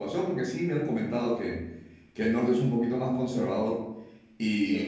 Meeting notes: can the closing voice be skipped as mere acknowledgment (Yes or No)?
Yes